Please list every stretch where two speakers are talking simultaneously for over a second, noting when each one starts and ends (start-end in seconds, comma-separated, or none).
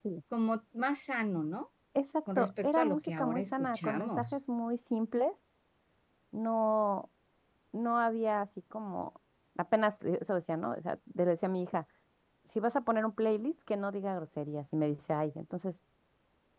2.4-4.4